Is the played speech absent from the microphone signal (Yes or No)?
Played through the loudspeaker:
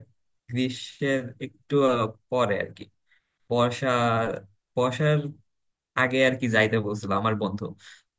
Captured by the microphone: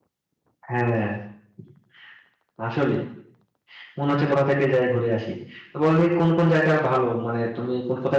Yes